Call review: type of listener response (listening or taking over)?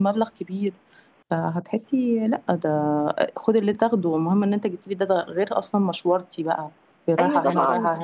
taking over